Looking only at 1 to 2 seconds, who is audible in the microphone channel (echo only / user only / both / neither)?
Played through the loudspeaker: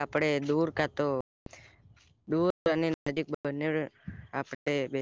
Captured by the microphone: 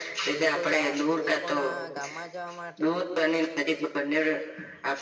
both